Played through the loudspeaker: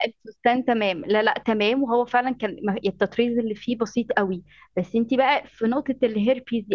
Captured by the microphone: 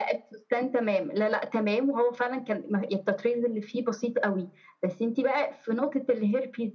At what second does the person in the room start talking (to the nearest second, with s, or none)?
none